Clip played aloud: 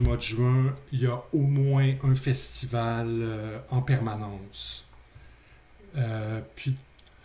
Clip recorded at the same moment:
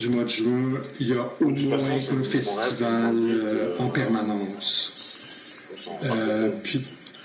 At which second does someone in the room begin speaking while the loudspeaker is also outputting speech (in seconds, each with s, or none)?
1.4 s